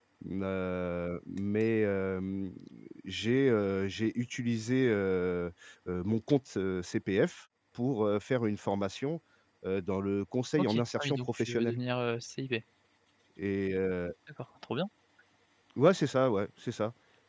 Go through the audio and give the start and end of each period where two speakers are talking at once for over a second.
10.6-11.8

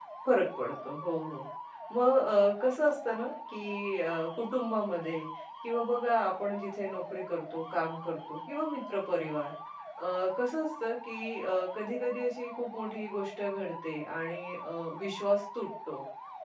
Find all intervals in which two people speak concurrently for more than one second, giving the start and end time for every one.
none

